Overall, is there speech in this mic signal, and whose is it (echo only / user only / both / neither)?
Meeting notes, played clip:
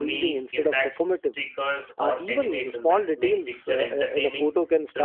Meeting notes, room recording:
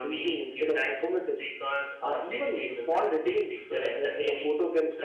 echo only